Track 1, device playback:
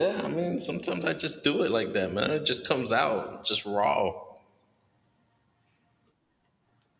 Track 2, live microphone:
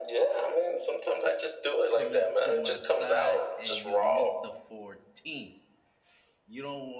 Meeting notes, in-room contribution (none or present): present